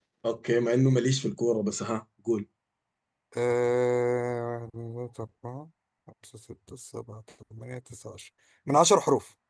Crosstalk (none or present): none